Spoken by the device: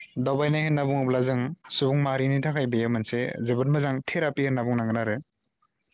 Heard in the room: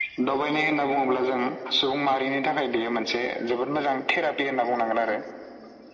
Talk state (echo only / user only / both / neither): echo only